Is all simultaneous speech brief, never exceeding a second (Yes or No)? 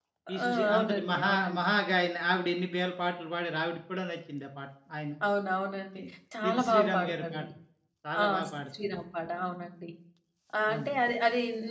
No